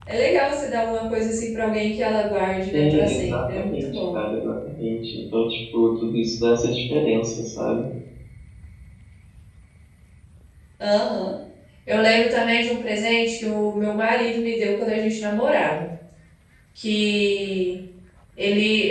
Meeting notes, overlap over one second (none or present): present